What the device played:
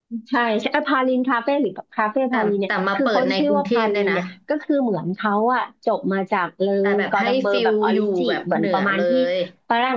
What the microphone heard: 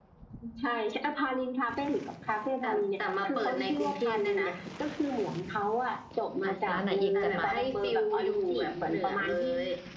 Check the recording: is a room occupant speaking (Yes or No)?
Yes